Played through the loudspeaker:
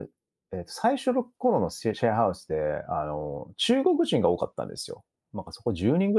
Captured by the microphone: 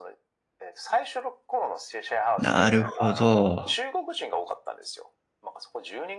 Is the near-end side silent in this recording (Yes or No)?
No